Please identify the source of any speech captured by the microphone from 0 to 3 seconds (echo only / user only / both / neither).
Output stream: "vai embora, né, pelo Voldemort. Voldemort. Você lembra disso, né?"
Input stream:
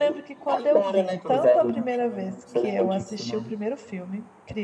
both